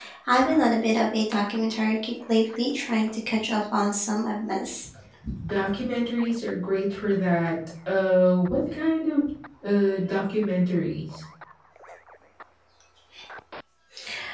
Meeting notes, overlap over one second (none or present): none